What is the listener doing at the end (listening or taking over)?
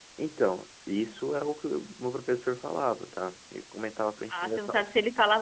taking over